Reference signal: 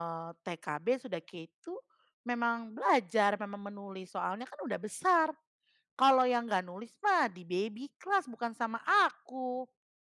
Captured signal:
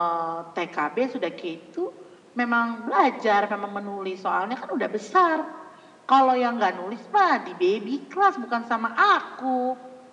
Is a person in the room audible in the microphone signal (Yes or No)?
No